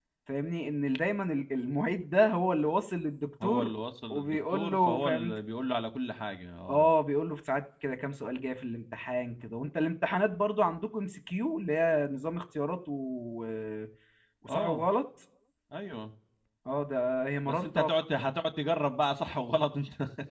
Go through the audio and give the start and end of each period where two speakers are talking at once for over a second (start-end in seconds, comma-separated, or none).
4.1-5.4